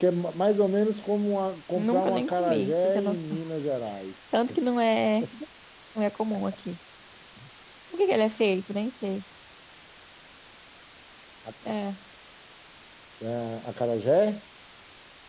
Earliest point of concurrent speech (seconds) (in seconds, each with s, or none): 1.7 s